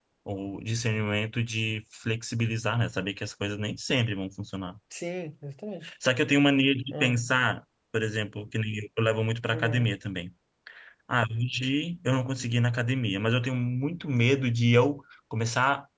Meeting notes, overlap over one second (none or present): none